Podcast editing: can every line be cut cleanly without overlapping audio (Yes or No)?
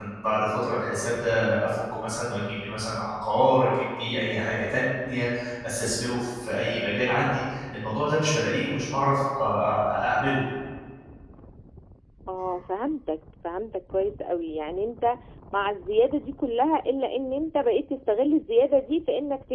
Yes